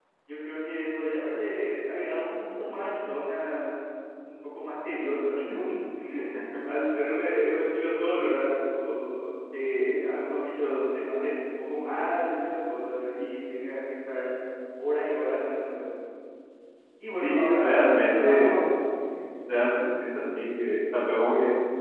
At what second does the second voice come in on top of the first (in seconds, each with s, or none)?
17.2 s